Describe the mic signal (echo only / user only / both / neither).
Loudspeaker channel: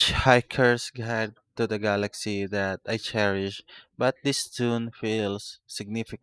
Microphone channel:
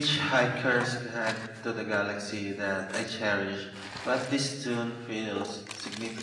echo only